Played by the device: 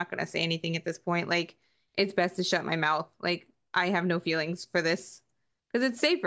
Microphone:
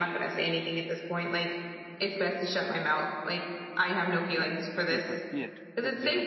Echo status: present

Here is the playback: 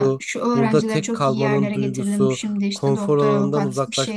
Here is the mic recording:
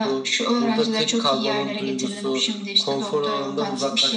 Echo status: present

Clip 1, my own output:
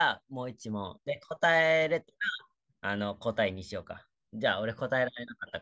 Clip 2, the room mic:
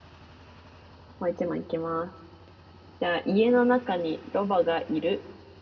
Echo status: none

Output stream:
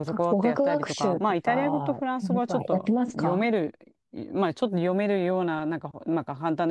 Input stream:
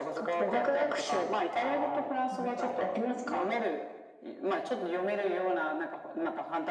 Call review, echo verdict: present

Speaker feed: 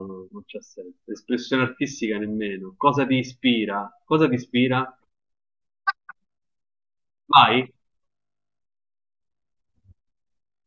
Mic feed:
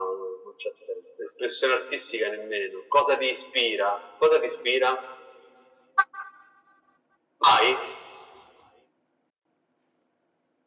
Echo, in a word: present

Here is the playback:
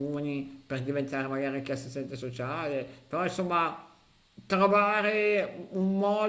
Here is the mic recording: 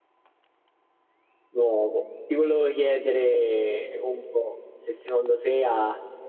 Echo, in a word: none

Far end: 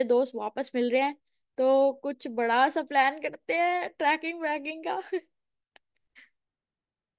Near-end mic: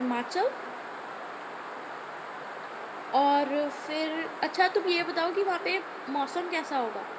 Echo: none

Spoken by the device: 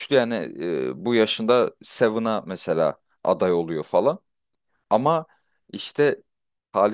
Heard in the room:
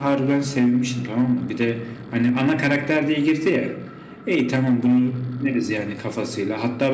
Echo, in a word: none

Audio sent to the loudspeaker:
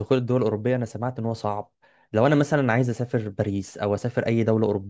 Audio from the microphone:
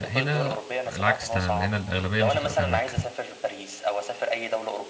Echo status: present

